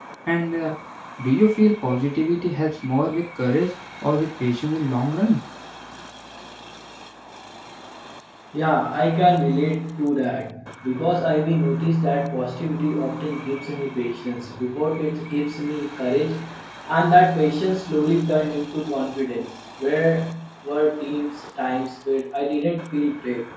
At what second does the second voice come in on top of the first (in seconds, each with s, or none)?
none